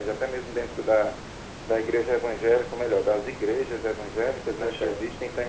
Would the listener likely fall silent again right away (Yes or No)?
Yes